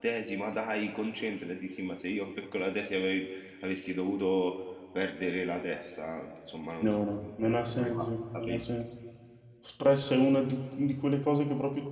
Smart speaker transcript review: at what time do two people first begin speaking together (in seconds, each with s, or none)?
6.8 s